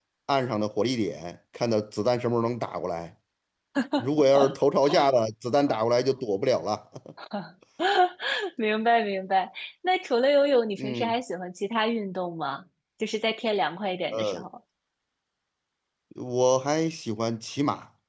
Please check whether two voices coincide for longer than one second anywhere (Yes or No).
No